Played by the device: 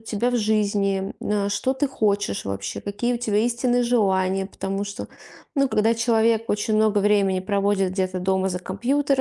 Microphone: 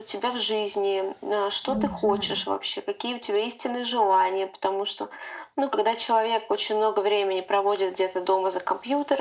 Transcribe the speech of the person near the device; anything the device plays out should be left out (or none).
Мгм.